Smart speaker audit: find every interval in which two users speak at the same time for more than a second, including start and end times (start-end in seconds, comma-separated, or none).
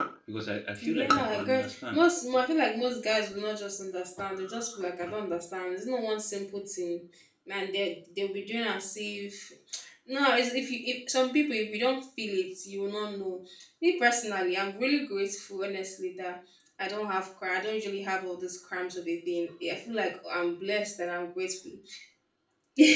0.8-2.0